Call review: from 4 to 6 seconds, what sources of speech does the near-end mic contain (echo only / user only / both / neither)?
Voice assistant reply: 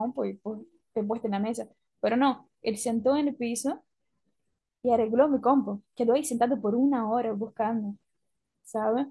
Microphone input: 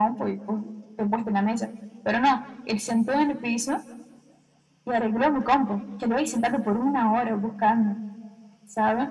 echo only